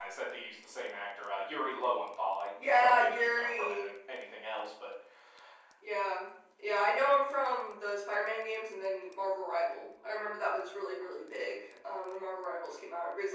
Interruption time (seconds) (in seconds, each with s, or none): 2.5 s